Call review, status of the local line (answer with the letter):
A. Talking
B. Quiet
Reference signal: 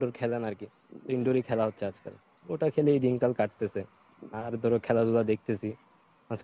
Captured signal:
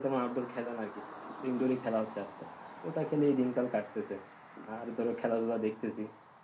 B